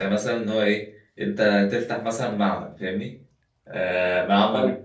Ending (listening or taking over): listening